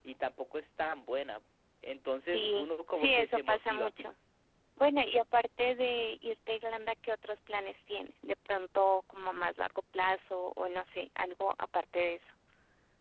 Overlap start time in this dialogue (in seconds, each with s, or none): 2.3 s